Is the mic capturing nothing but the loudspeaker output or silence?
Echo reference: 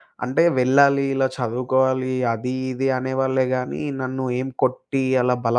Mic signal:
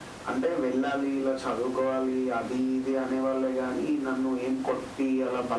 Yes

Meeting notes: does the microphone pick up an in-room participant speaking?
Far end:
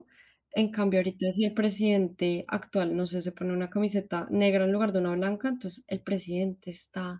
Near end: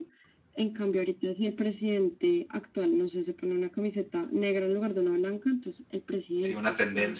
Yes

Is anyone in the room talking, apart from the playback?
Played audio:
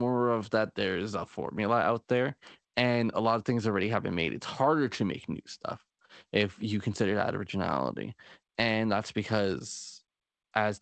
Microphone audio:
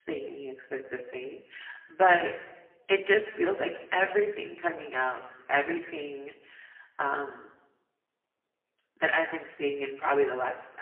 Yes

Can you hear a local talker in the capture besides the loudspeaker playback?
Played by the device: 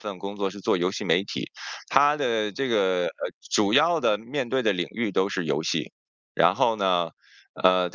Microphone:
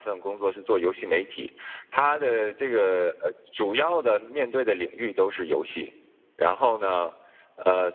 No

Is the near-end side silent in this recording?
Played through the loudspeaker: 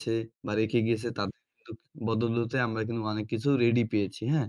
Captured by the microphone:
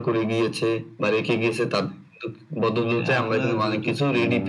No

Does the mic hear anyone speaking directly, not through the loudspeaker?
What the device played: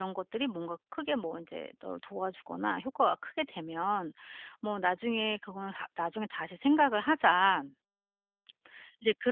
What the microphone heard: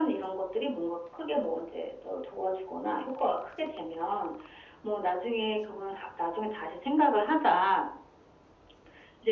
No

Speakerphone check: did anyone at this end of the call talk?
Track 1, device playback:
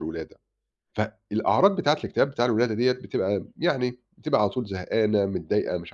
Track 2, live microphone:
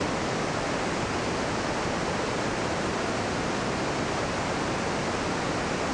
No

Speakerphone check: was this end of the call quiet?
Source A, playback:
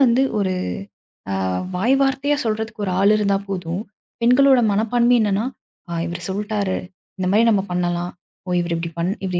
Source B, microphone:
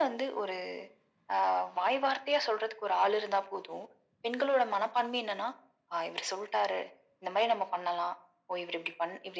Yes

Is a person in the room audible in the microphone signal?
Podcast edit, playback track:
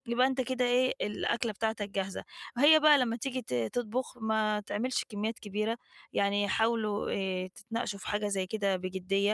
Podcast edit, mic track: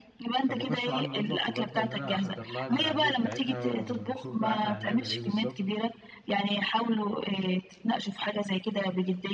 Yes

